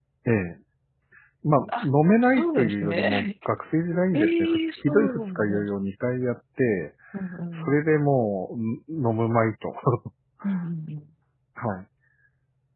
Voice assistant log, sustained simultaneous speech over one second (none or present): present